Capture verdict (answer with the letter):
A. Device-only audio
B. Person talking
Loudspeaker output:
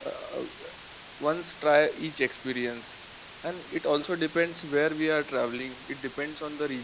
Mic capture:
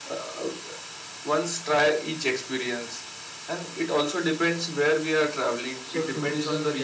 B